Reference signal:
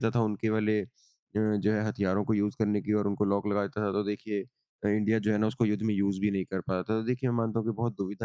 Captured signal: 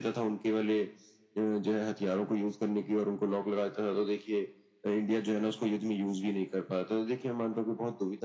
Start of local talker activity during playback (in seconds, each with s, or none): none